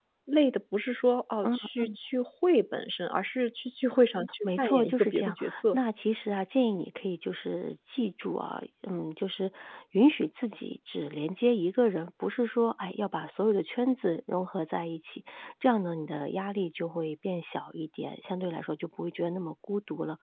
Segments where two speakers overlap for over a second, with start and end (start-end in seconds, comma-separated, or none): 4.4-5.8